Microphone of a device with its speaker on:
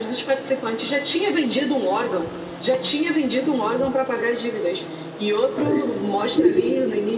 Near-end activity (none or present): present